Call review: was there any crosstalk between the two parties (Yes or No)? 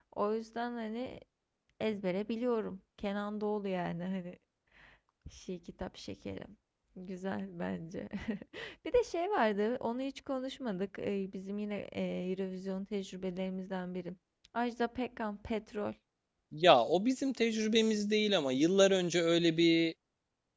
No